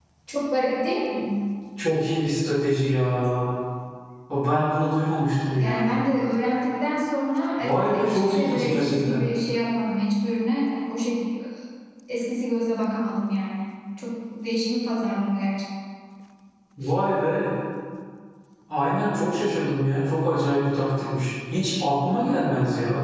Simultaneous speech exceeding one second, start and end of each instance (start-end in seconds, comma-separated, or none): 7.6-9.2